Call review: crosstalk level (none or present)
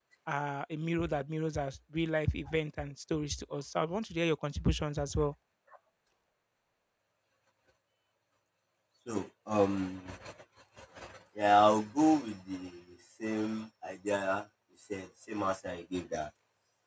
none